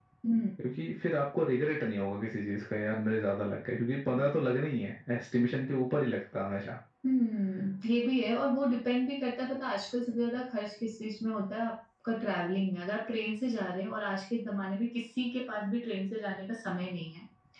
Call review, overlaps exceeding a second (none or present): none